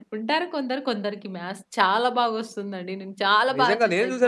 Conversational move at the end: taking over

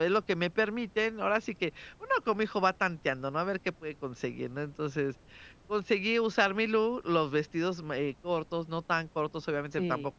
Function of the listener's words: listening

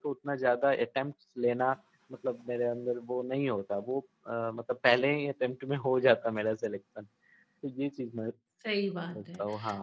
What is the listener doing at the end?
taking over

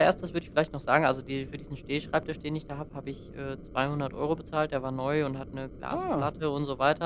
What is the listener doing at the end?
listening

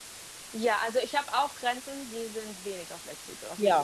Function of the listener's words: taking over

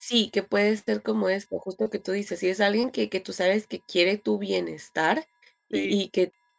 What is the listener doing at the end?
listening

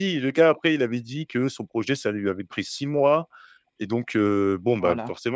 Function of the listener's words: listening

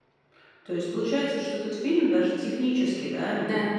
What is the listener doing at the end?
listening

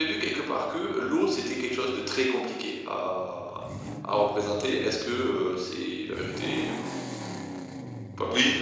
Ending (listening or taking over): taking over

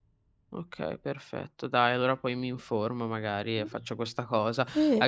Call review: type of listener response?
listening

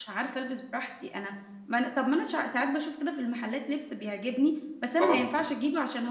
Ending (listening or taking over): listening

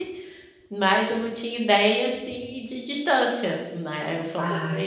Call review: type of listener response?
listening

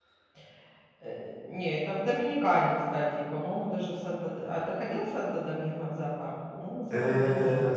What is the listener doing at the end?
taking over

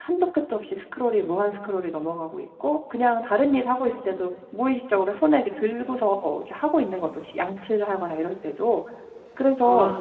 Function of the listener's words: listening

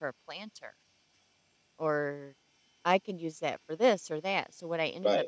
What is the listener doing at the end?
taking over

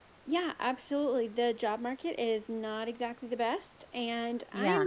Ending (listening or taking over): listening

